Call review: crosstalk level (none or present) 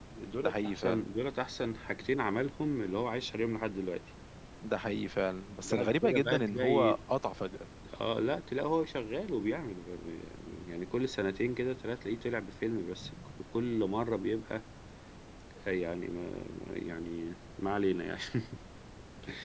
present